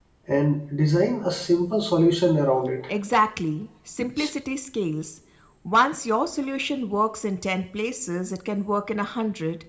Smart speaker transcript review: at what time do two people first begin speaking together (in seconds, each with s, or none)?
none